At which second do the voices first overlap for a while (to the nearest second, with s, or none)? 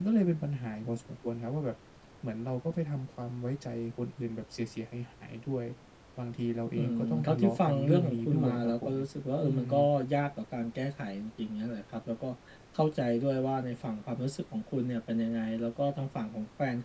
7 s